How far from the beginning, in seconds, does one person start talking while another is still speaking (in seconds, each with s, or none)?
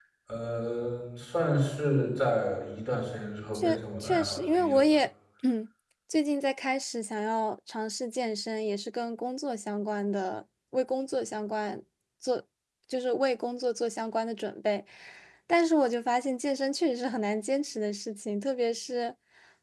3.5 s